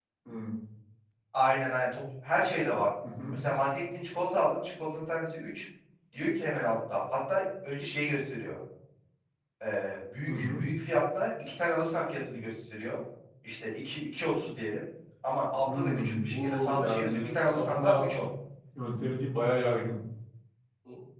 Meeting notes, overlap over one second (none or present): present